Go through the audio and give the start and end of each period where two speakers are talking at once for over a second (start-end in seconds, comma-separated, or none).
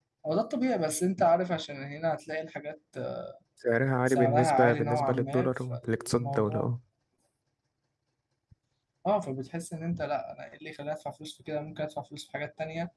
4.1-6.7